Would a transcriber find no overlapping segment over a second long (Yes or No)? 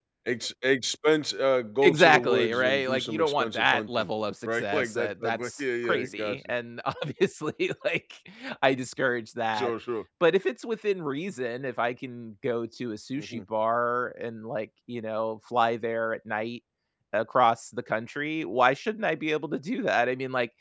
No